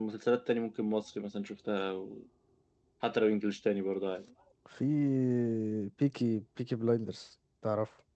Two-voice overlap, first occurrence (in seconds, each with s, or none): none